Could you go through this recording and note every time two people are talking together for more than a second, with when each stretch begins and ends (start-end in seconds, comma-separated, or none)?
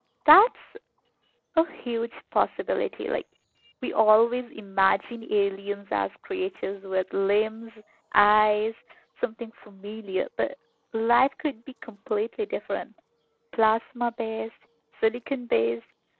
none